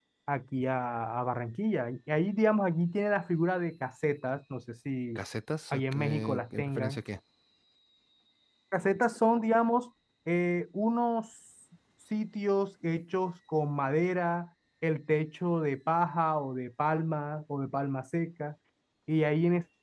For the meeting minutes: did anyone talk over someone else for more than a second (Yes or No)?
Yes